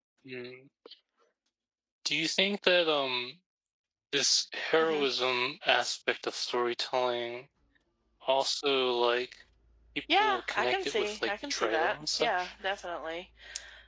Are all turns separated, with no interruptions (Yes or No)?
No